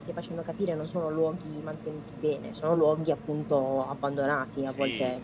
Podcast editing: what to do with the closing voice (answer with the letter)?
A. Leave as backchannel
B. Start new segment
B